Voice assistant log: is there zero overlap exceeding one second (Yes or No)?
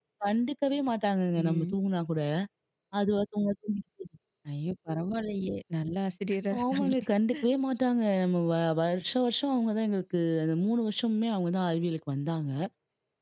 Yes